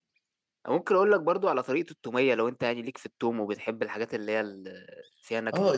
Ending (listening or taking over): taking over